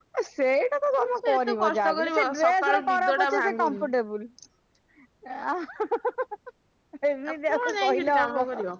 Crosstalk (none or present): present